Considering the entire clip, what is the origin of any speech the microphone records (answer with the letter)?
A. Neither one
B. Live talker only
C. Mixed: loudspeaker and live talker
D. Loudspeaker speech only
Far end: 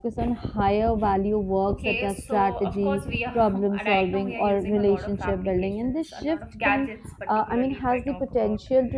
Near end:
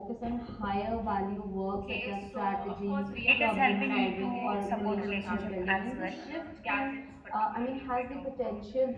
C